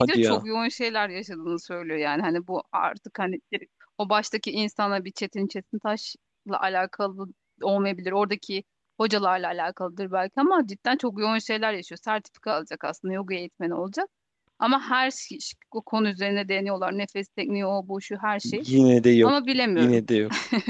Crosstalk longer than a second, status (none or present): none